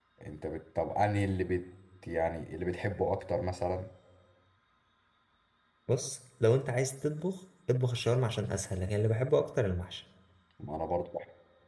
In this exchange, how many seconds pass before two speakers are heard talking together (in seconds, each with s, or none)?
none